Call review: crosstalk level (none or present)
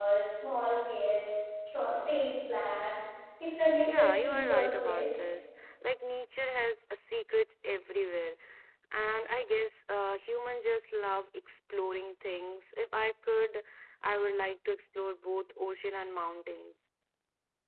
present